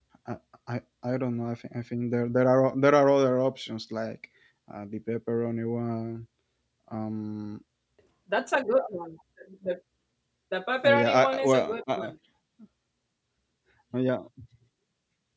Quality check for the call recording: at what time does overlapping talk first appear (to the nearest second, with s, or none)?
11 s